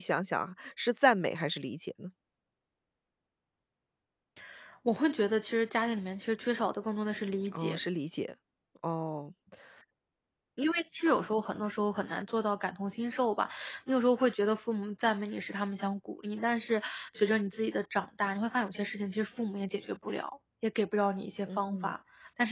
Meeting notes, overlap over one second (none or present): none